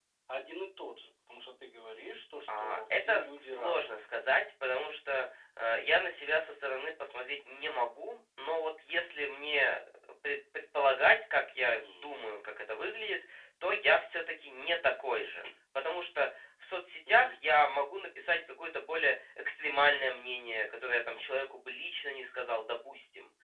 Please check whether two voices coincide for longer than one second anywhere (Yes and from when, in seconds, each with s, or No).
Yes, from 2.6 s